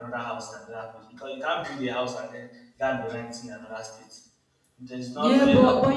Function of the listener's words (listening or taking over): taking over